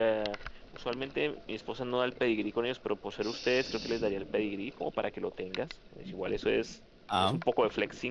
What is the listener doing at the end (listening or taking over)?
listening